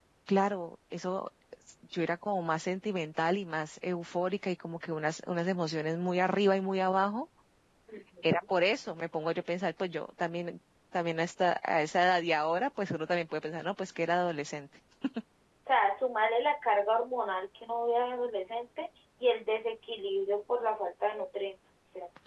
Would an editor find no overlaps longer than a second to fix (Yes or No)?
Yes